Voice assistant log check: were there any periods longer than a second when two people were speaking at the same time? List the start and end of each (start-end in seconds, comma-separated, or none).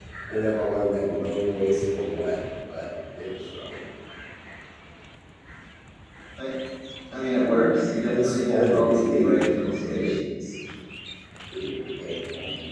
8.1-10.2